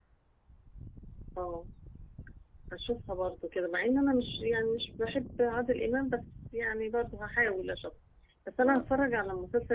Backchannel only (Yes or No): Yes